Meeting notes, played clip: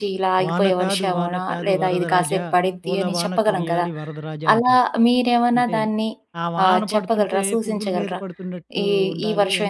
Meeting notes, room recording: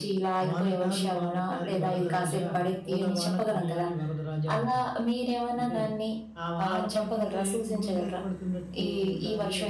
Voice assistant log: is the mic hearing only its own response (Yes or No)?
No